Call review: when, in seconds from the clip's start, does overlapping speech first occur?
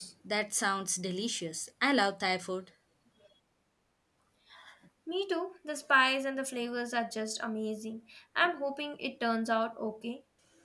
none

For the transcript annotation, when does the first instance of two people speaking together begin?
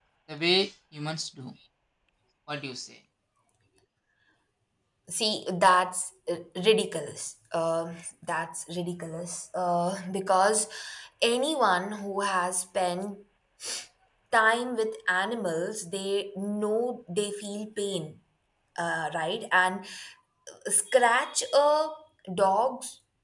none

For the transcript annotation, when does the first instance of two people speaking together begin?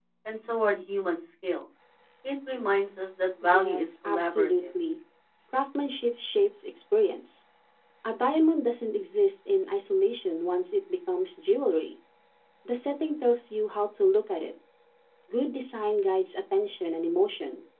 3.4 s

